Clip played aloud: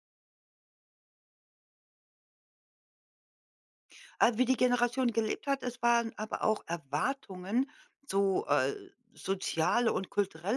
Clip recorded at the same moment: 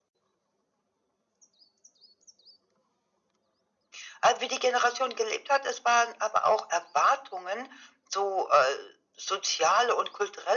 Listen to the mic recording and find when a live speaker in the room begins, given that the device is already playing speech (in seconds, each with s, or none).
none